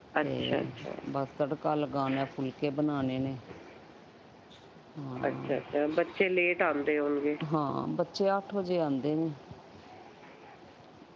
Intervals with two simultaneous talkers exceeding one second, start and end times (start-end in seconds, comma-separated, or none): none